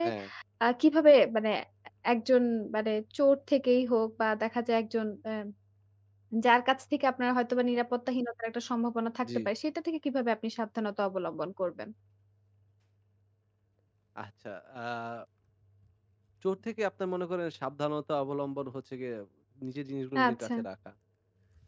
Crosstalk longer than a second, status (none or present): none